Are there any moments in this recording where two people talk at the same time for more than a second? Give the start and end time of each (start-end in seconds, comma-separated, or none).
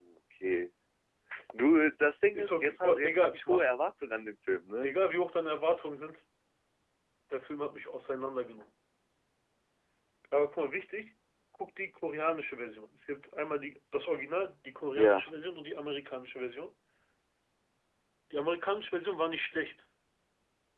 2.4-3.7